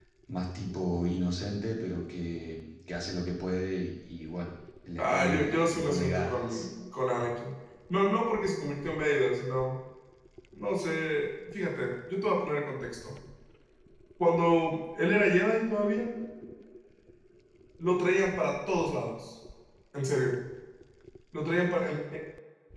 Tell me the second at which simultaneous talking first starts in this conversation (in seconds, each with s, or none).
5.0 s